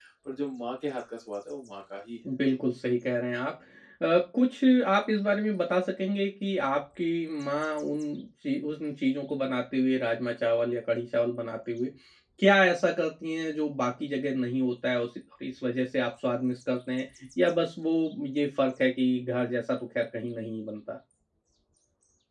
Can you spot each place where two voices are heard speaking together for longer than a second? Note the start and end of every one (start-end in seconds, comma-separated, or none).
none